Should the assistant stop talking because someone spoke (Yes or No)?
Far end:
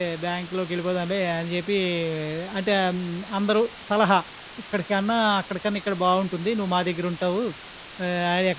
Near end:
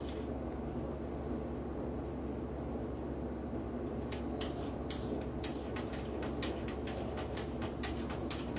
No